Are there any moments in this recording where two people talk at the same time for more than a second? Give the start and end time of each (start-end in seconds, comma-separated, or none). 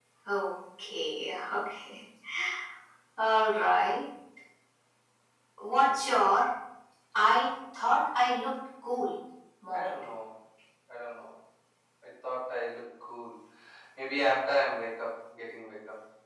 none